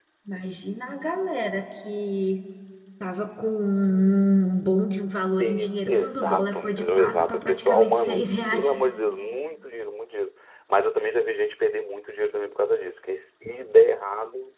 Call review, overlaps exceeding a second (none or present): present